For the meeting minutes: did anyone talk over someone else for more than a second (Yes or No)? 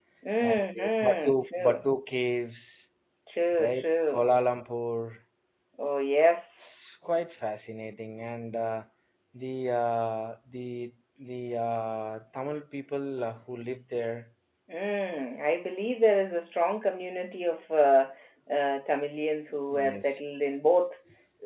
Yes